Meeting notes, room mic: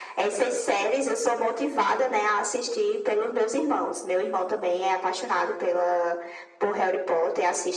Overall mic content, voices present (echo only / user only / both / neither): echo only